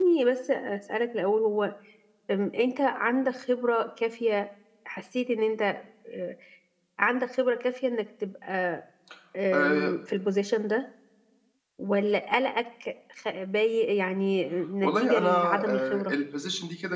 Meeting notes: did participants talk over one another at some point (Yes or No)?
Yes